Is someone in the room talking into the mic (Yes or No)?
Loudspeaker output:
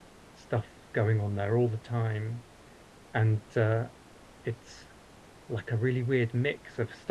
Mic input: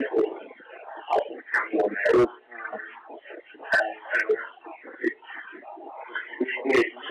No